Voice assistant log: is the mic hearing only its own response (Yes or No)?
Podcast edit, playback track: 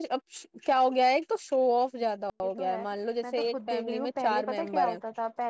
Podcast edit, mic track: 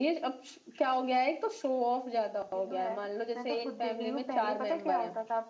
Yes